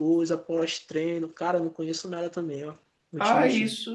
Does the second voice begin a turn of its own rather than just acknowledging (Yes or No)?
Yes